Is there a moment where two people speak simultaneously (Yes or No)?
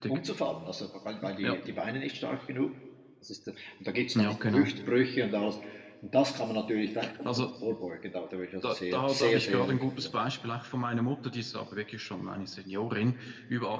Yes